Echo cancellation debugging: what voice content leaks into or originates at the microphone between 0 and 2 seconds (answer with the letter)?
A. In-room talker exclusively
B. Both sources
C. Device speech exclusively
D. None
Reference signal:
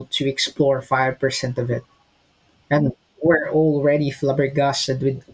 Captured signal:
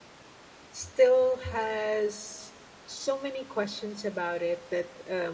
A